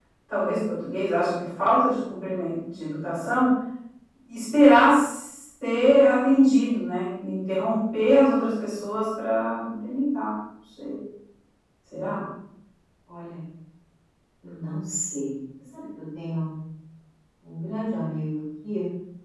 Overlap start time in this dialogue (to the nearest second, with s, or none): none